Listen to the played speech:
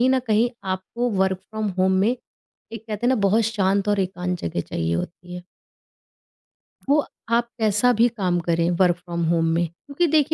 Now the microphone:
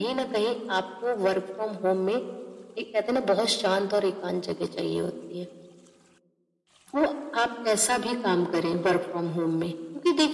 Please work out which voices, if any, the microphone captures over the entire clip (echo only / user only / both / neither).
echo only